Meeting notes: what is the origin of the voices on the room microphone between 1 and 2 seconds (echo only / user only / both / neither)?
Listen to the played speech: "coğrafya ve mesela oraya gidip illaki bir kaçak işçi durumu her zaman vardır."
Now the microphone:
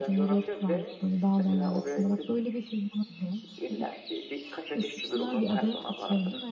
both